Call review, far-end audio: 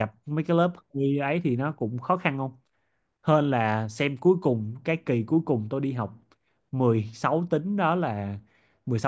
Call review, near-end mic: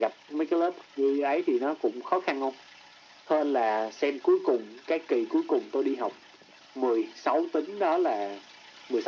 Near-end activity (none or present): none